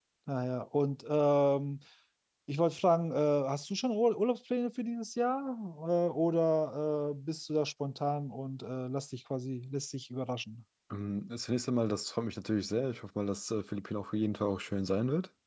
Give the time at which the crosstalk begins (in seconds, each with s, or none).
none